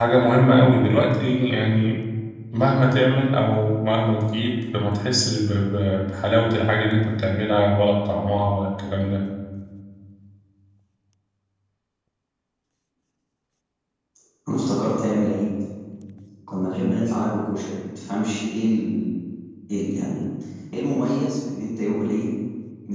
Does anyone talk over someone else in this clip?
No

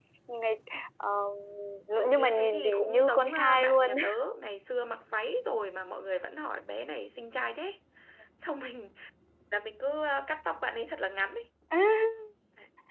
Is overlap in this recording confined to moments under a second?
No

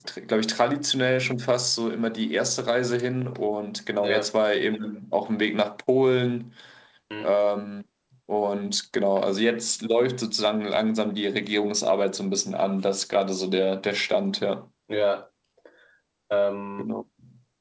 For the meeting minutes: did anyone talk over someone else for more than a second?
No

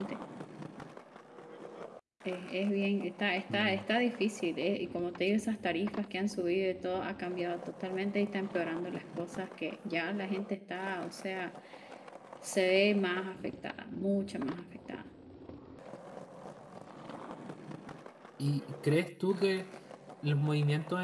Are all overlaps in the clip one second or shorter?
Yes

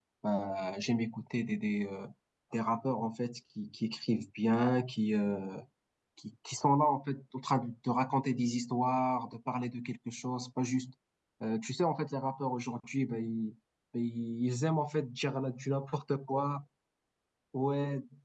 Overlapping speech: No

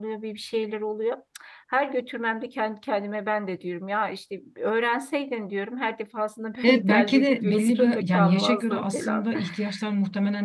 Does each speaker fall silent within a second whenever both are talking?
No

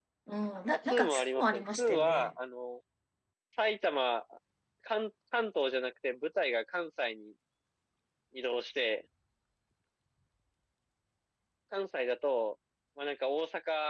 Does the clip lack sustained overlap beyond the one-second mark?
No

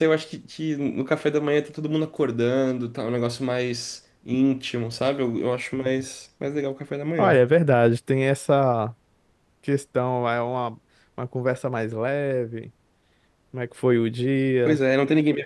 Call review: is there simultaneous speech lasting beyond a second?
No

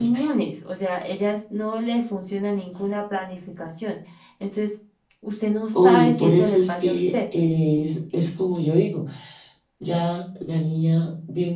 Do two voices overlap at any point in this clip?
Yes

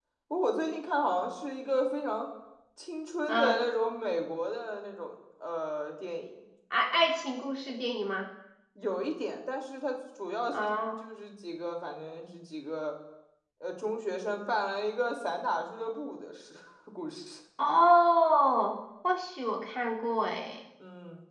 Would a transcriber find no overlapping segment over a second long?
Yes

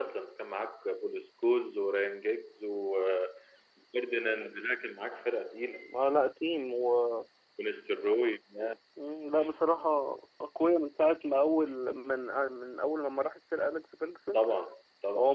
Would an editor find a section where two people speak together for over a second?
No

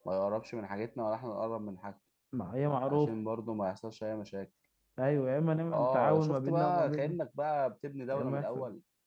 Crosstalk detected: Yes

